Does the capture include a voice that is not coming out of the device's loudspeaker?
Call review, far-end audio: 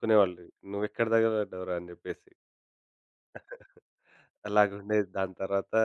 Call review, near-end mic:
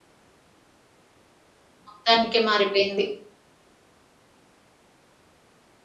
Yes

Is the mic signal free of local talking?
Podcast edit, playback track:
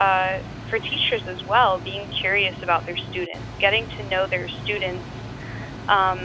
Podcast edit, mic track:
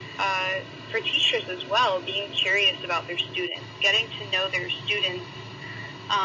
Yes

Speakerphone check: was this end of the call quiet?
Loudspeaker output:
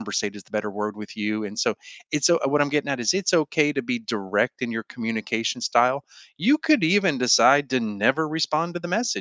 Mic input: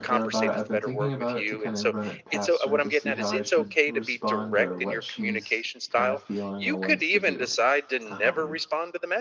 No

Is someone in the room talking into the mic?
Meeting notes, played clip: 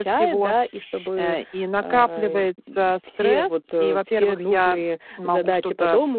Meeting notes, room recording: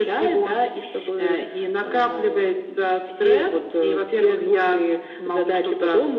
No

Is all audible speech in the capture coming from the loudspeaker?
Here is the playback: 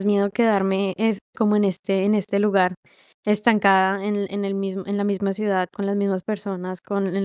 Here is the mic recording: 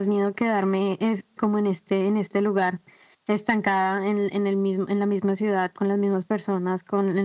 Yes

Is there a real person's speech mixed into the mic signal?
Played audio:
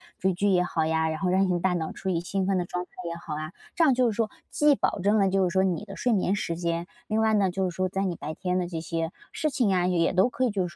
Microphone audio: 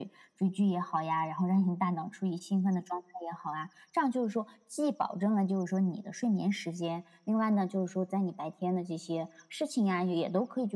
No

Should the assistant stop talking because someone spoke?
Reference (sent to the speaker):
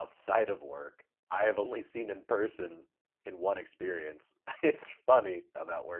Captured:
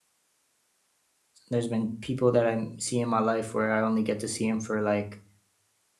Yes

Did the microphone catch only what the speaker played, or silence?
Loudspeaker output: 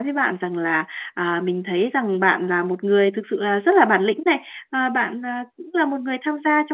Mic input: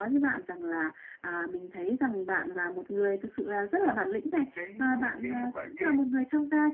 No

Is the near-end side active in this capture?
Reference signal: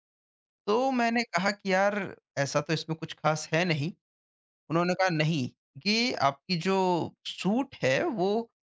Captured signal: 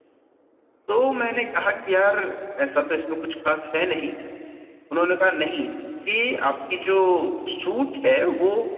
No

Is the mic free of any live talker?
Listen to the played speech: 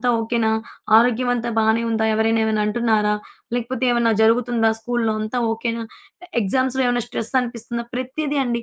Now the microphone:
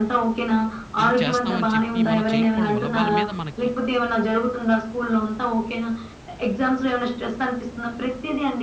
No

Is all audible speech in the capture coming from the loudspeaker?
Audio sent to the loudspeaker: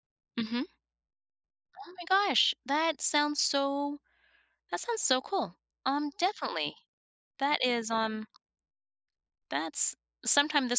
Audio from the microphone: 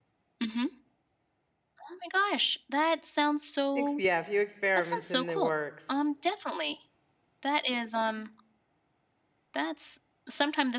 No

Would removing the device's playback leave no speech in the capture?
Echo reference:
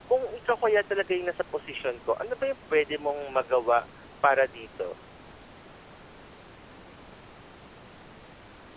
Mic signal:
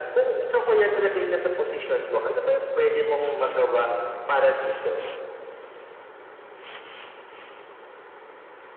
Yes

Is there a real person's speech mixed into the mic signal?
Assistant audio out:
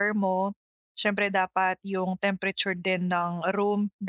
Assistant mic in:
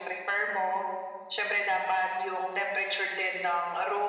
No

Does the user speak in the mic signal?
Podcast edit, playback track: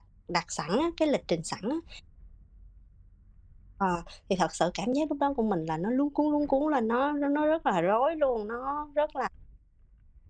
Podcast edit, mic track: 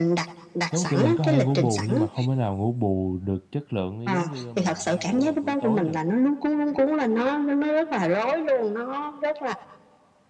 Yes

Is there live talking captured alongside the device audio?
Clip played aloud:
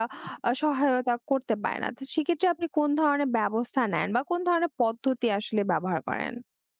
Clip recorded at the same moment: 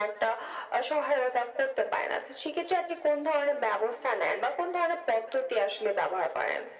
No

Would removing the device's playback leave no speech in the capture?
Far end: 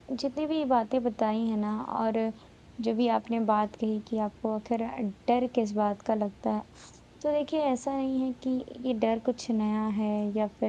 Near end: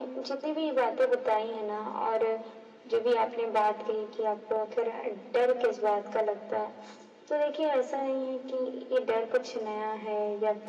Yes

